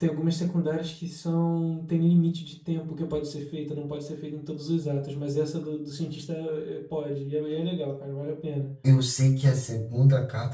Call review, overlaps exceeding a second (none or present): none